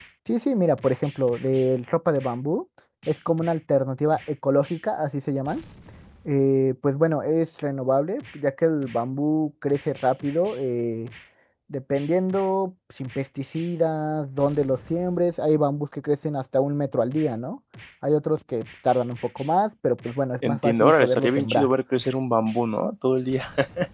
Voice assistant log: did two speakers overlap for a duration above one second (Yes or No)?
Yes